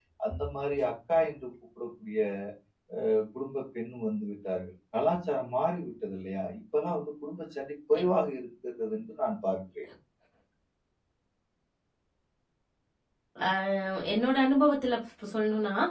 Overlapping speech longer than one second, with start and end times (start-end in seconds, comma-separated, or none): none